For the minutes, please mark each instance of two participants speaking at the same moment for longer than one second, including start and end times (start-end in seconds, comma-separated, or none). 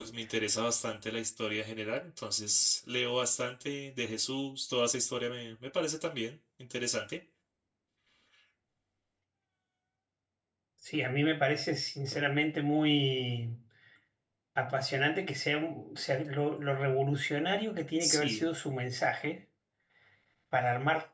none